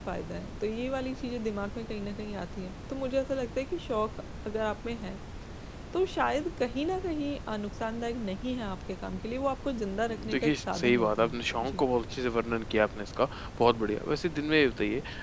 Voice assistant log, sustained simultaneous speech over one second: present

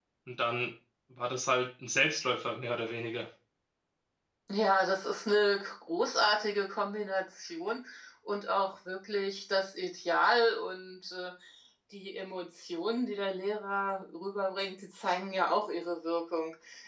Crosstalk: none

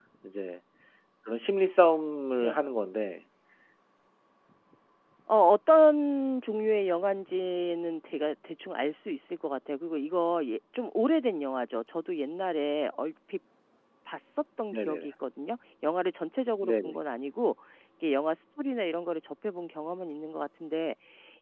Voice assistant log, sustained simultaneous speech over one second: none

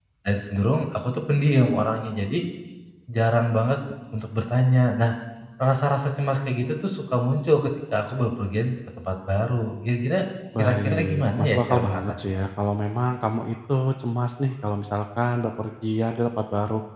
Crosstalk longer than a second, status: present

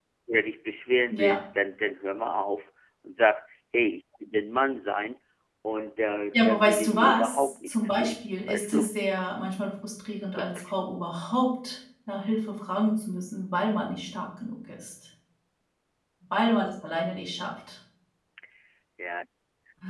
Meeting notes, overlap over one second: present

